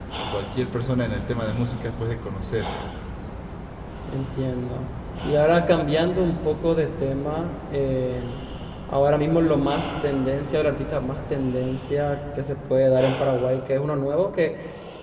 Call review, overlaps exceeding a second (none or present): none